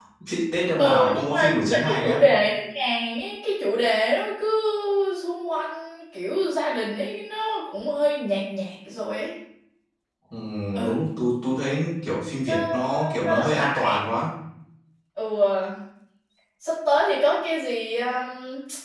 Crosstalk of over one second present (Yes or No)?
Yes